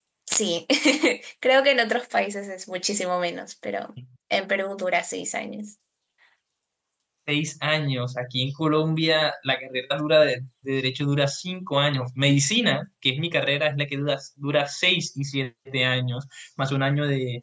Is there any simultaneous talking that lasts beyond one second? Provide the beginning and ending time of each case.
none

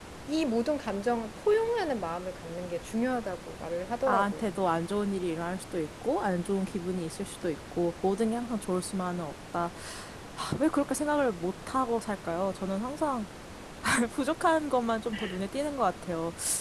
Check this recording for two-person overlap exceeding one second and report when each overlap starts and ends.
none

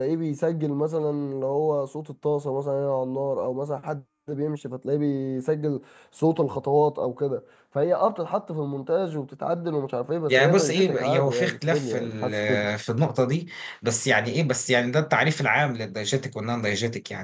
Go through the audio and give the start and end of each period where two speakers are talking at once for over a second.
10.3-12.7

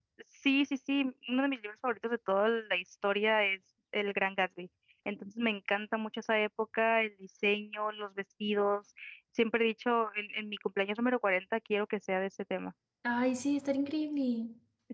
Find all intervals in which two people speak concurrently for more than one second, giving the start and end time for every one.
none

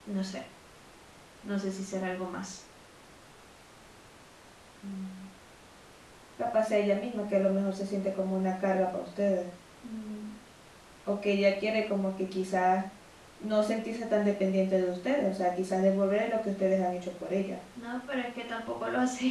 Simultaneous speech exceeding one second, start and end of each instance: none

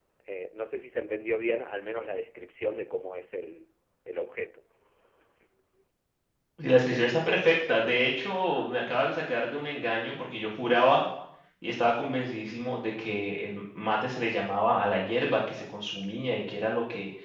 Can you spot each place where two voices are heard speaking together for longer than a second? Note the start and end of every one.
none

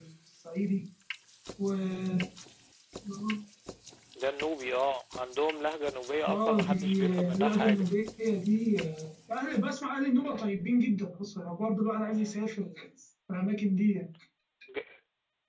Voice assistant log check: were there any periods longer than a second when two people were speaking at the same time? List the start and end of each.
6.3-7.9

